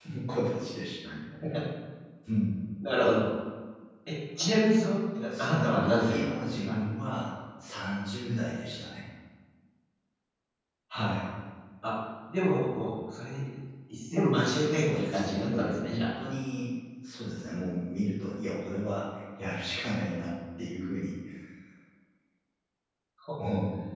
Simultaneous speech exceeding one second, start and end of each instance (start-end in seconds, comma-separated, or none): 5.4-6.8, 14.4-16.1